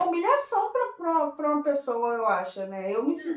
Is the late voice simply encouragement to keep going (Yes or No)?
Yes